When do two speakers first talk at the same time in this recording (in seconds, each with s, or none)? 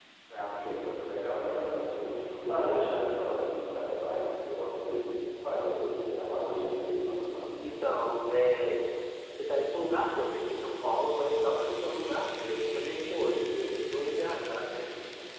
none